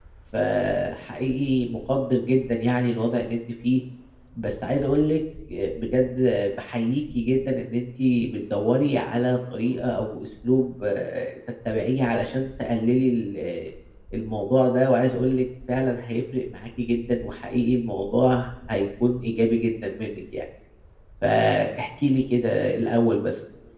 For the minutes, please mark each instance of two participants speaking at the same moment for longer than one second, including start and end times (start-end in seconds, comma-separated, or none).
none